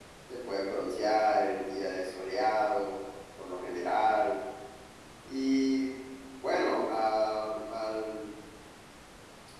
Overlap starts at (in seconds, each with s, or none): none